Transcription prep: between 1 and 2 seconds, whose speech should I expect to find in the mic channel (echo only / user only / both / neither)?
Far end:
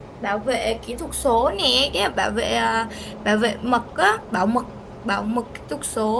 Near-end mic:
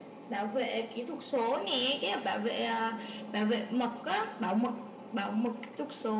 echo only